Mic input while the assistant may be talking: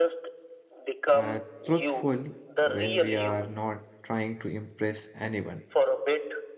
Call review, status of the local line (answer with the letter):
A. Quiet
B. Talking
B